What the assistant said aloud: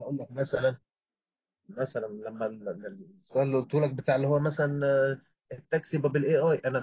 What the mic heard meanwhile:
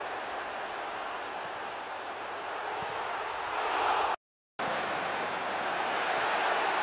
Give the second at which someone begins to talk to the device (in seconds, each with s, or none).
none